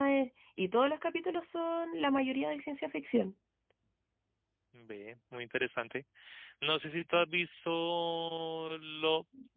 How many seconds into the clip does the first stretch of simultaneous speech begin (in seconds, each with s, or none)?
none